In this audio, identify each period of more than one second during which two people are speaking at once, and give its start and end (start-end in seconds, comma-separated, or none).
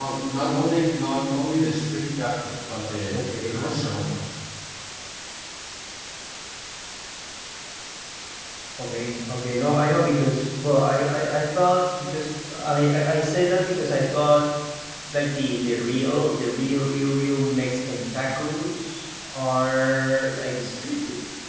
none